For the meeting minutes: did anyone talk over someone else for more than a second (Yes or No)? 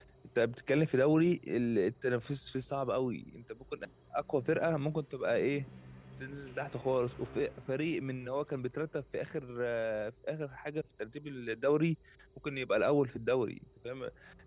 No